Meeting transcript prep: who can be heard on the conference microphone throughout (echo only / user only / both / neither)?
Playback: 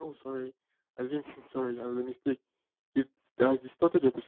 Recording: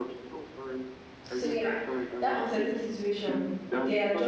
both